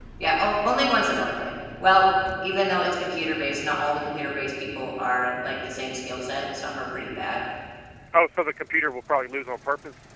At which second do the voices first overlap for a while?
none

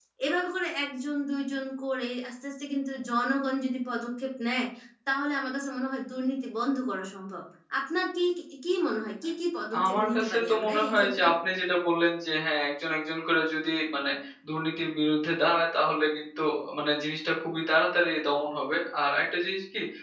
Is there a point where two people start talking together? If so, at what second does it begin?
10 s

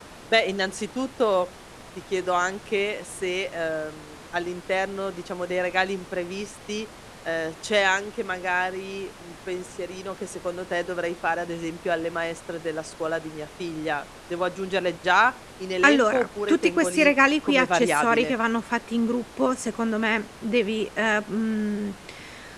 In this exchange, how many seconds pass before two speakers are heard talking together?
16 s

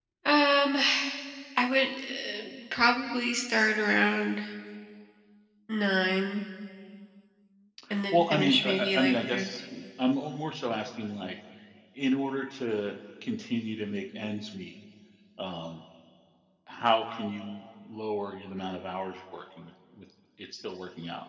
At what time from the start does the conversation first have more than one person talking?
8 s

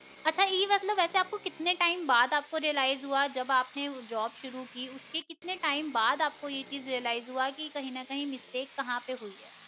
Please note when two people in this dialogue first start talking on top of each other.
none

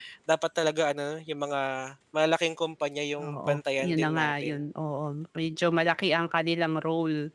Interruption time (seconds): 3 s

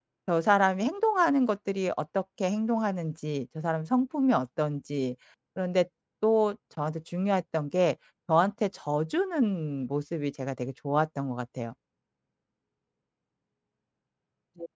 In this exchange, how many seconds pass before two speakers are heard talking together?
none

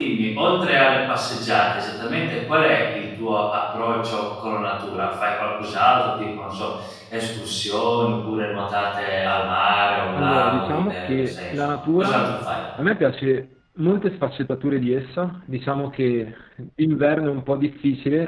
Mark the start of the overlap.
10 s

